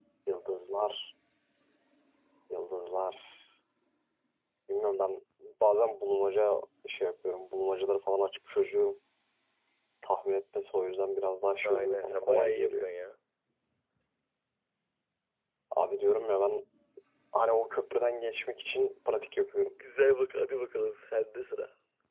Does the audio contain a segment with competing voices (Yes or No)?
Yes